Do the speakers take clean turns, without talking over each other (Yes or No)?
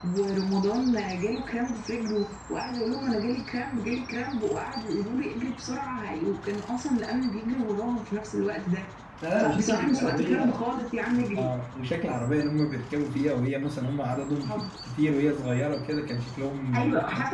No